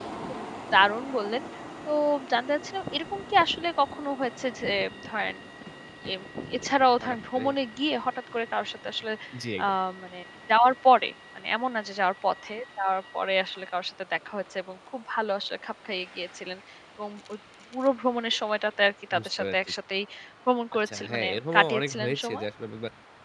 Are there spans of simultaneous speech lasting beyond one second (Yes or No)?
Yes